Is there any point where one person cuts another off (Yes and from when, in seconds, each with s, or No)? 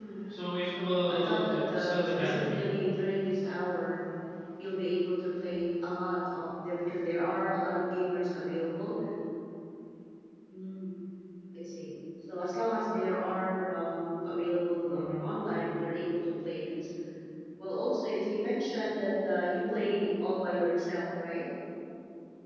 Yes, from 0.6 s